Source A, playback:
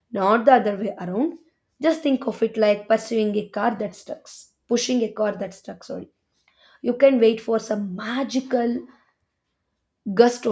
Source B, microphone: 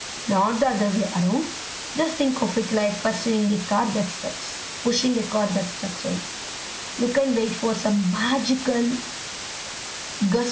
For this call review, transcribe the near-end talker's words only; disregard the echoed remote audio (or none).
none